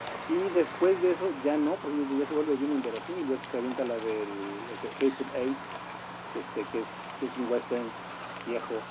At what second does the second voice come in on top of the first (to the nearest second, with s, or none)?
none